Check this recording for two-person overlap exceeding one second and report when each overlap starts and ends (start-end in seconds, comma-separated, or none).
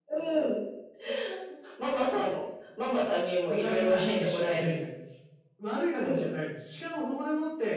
3.5-4.7